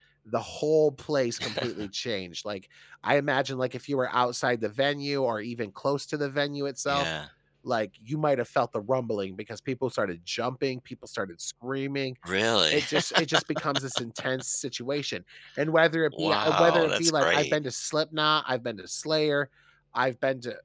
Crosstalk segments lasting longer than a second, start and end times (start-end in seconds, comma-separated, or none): 16.2-17.6